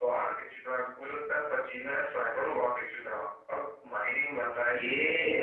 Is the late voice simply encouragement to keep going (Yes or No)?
No